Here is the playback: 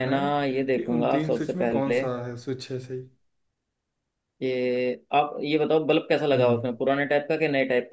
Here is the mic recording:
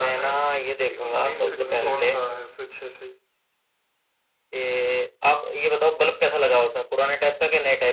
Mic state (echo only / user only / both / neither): both